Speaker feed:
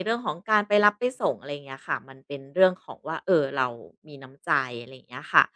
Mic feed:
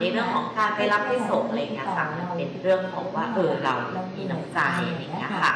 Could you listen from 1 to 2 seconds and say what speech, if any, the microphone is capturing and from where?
both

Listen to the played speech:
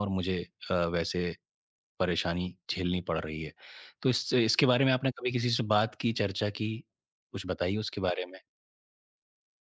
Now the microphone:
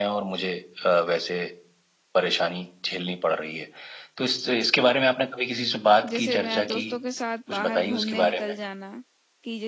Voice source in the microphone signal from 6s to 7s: both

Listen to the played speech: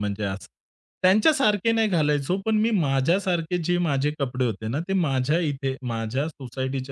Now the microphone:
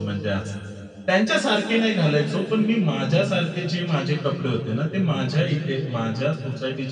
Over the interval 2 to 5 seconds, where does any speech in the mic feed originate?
echo only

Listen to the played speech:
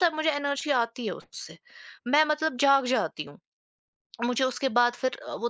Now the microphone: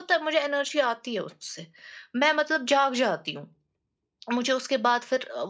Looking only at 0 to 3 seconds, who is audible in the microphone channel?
echo only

